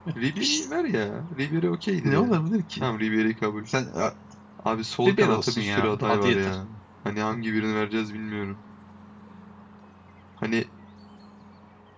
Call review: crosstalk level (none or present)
present